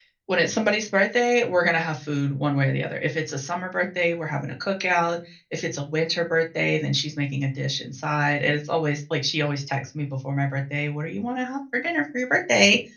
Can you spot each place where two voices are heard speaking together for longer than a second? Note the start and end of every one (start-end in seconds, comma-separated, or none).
none